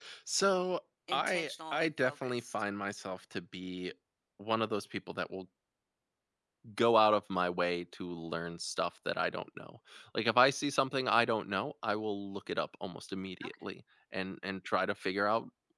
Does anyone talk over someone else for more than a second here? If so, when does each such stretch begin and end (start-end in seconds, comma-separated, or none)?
1.1-2.4